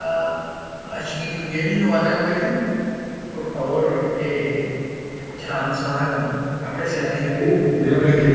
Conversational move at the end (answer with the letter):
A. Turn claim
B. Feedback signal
A